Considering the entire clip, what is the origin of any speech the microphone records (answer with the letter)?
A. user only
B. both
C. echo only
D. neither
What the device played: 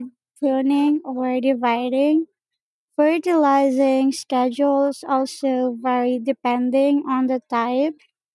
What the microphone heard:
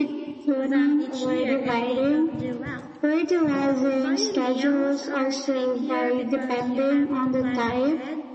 B